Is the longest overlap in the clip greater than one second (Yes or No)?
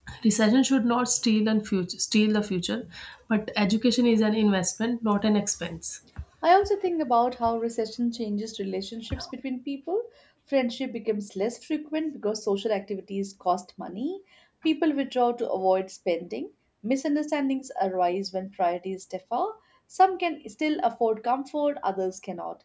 No